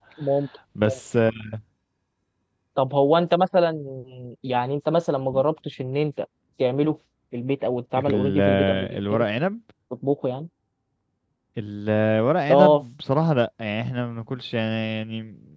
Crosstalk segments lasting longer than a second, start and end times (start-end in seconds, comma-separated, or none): 8.0-9.2